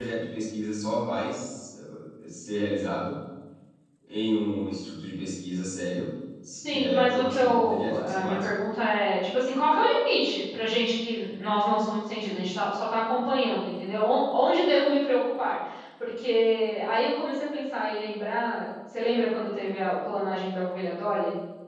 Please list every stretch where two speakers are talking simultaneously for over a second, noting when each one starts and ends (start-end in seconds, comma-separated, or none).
6.5-8.4